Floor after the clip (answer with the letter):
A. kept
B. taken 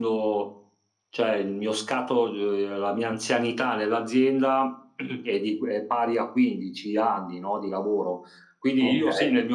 A